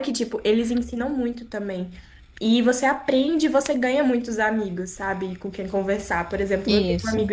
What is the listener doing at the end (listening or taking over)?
listening